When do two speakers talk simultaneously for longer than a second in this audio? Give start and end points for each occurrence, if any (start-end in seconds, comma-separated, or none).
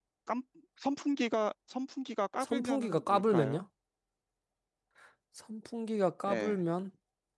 2.4-3.6